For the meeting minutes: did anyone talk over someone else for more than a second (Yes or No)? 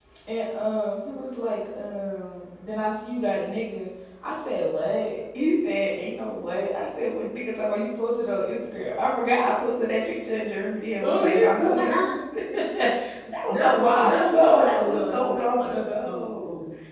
Yes